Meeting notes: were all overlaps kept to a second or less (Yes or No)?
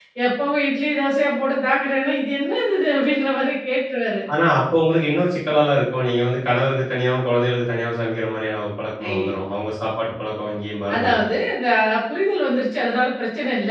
Yes